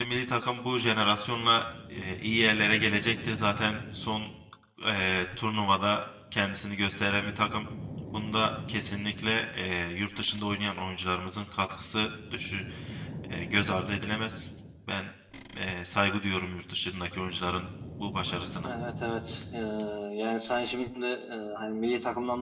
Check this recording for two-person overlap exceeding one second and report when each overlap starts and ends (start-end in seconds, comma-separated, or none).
none